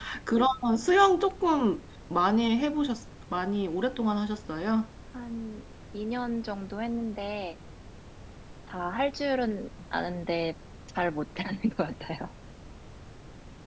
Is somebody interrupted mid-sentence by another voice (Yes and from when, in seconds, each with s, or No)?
No